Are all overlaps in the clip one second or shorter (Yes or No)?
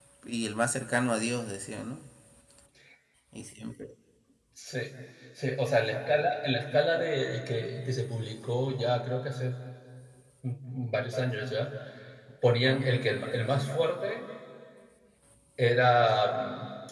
Yes